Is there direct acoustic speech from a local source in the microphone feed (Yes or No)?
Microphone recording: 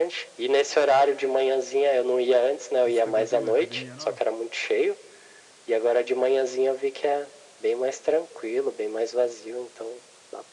Yes